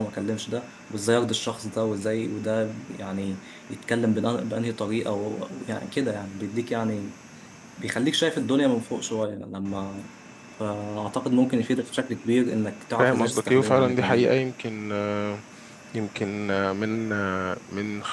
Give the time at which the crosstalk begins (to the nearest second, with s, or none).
13 s